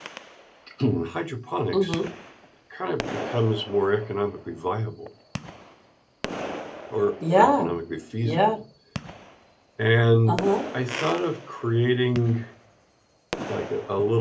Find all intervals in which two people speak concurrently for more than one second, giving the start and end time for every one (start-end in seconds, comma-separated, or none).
none